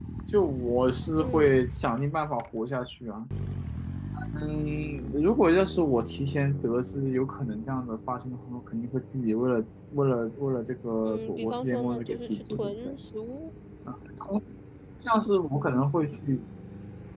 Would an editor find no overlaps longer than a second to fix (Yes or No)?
No